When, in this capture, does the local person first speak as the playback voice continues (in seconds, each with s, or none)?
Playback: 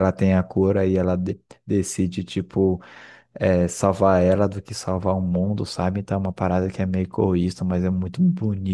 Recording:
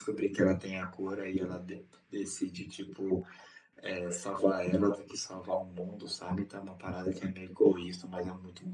none